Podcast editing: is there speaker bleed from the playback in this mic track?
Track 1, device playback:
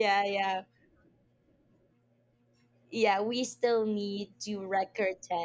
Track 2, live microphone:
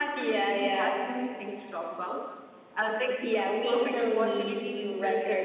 Yes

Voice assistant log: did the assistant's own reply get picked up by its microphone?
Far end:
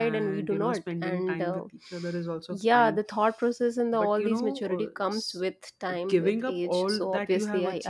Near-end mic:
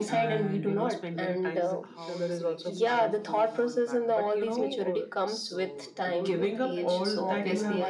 Yes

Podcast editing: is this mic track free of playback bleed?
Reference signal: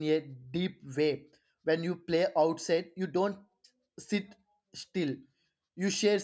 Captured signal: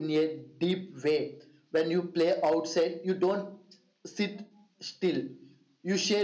No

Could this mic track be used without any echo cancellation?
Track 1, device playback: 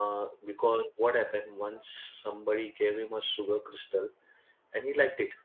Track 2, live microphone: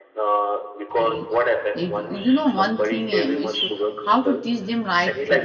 No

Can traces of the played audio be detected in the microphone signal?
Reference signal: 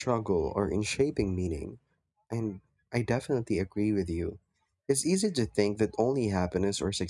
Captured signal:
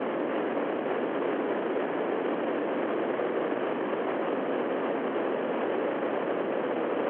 No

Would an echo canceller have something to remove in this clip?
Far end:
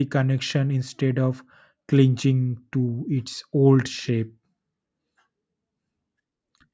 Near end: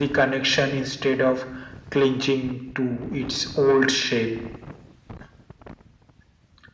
Yes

